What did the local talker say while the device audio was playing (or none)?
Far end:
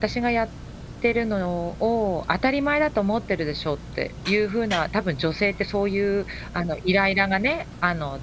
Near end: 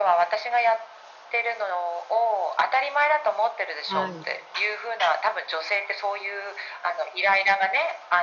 はい。